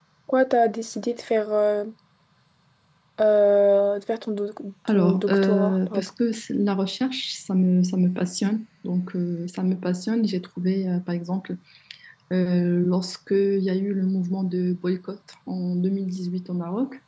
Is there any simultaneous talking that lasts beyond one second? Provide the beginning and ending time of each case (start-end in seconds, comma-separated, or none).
4.9-6.1